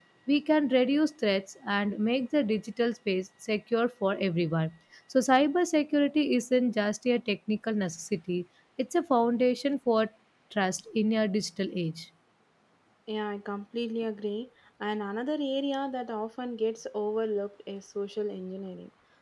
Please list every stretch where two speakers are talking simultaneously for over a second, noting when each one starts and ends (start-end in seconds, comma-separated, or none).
none